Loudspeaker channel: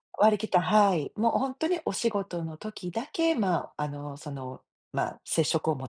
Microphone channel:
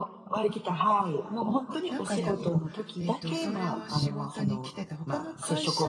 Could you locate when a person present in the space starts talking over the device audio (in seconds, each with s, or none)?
1.9 s